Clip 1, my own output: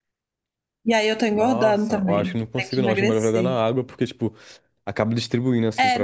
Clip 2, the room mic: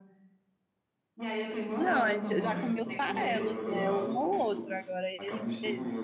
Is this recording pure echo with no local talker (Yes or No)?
No